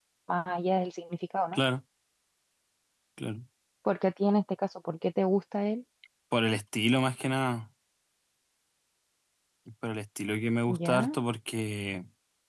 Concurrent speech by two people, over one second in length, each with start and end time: none

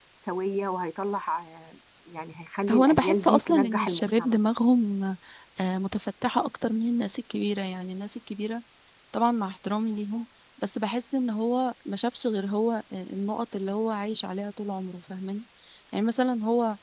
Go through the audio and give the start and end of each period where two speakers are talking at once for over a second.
2.7-4.4

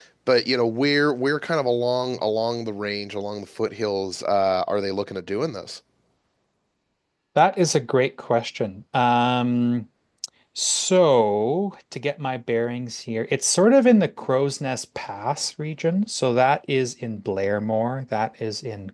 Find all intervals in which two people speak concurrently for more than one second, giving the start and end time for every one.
none

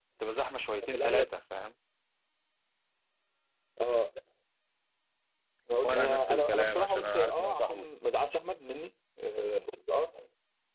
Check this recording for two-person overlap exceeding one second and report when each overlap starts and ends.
5.8-7.9

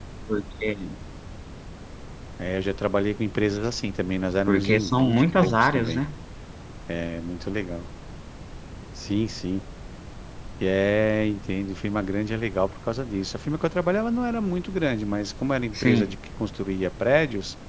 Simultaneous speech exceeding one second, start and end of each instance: 4.5-6.0

